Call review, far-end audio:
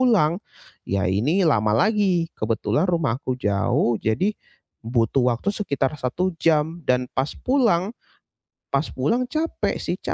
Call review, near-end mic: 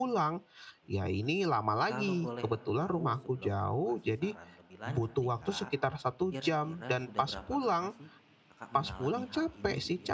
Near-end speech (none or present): present